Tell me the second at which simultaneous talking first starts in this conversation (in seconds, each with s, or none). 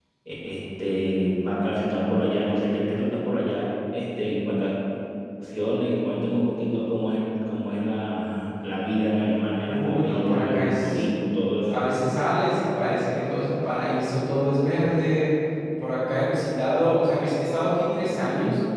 9.7 s